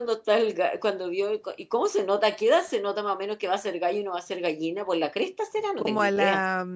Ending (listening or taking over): taking over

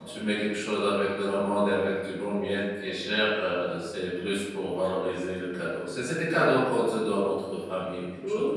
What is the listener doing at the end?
taking over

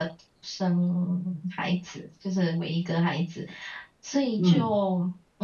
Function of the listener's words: listening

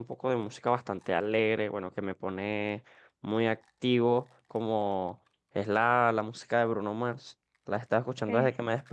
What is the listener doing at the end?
listening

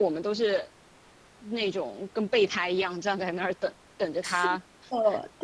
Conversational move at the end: taking over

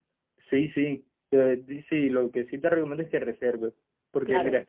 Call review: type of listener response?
listening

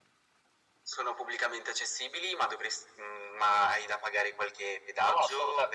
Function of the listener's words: taking over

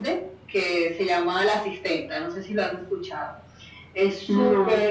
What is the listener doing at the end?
listening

